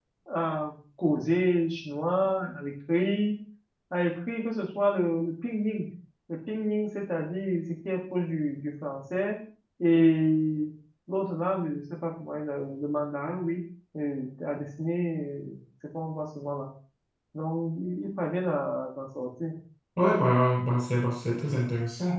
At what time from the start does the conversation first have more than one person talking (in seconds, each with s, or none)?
none